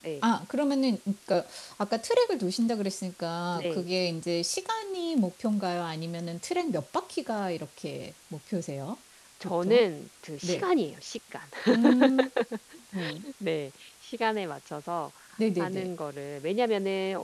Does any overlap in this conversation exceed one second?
No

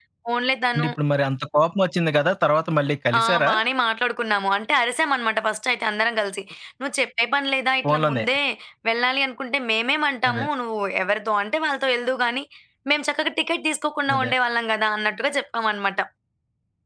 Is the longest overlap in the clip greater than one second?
No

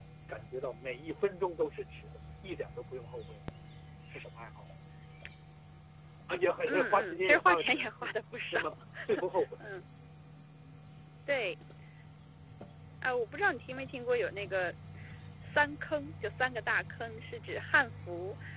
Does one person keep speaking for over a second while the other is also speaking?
Yes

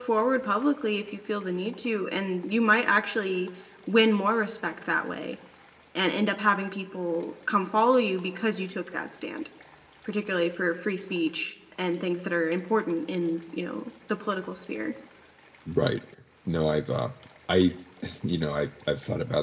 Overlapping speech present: No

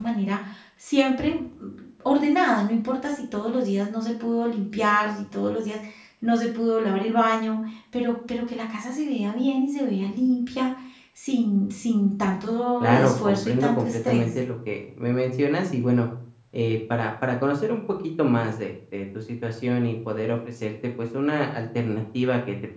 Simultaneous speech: Yes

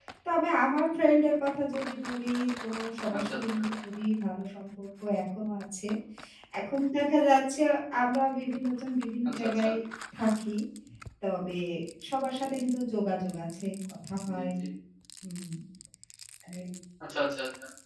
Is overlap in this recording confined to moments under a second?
Yes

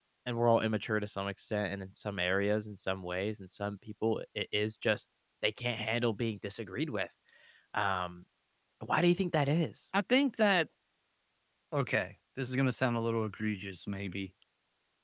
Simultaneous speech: No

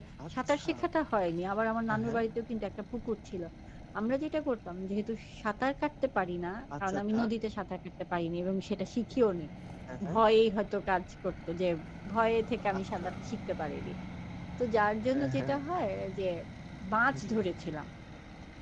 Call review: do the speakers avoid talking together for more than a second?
Yes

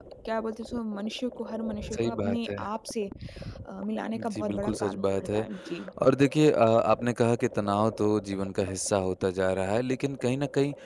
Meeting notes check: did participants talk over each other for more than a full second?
Yes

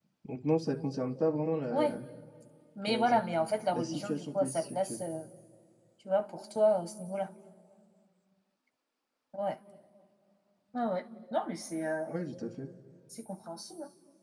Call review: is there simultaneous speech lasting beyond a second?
Yes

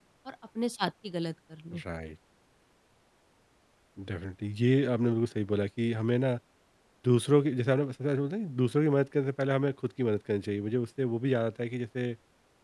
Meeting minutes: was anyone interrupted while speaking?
No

